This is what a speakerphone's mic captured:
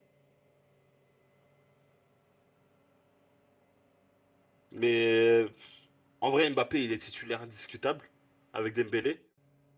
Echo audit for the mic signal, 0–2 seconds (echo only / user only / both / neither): neither